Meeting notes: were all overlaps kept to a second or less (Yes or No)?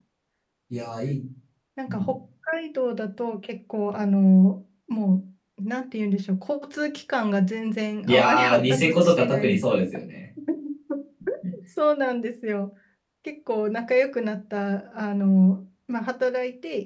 No